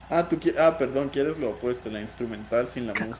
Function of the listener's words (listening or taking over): taking over